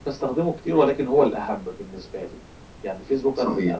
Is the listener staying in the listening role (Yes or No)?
Yes